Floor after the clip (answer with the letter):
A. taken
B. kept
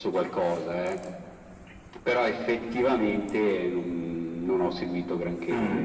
A